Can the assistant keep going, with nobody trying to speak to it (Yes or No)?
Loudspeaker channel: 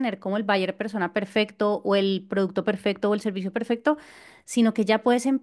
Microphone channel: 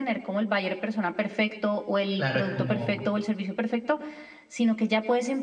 No